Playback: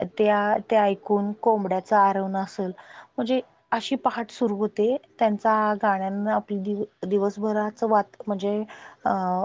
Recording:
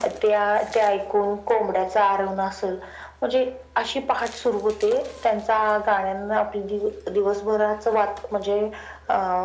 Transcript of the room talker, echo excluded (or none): none